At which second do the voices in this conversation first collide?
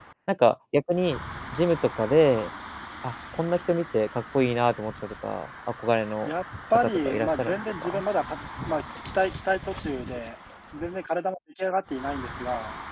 6.7 s

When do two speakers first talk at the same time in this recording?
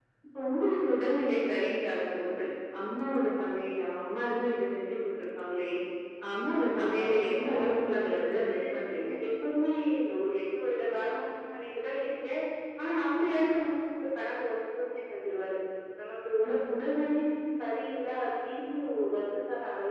6.6 s

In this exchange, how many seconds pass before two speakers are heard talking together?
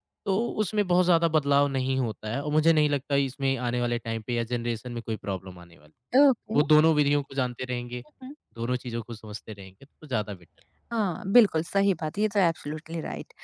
none

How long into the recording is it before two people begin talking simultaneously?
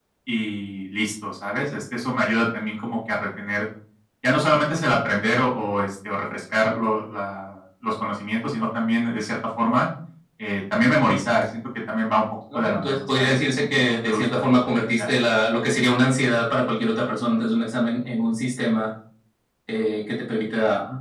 12.5 s

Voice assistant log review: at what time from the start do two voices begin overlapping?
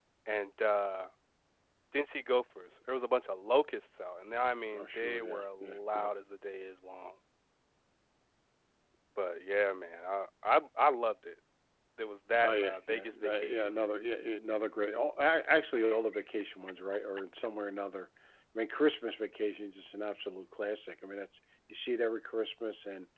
4.7 s

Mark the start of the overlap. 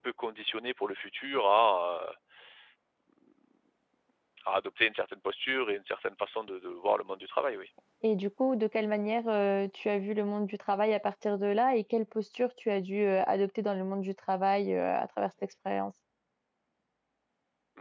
none

